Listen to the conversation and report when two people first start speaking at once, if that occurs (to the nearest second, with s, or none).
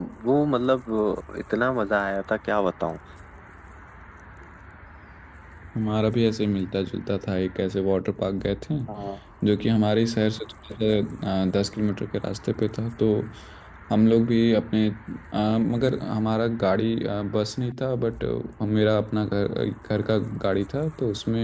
none